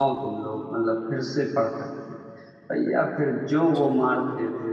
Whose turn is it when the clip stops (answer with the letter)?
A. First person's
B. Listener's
A